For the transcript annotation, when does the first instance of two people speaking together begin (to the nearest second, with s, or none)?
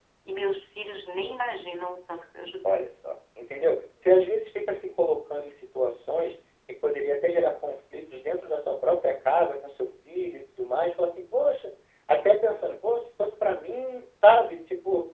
none